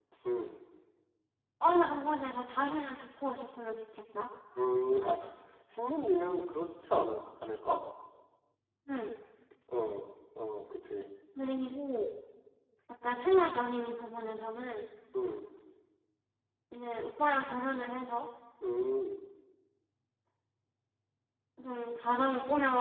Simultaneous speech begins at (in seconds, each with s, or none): none